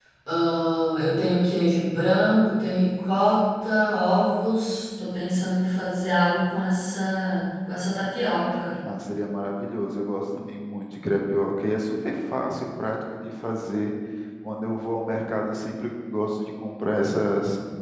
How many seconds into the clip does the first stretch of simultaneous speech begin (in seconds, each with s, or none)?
none